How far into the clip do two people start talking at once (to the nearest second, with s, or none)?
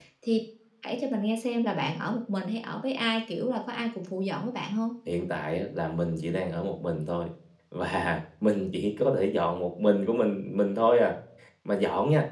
none